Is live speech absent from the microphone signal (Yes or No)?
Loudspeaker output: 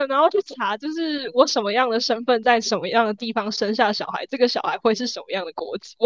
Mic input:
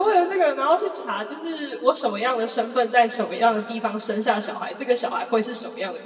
Yes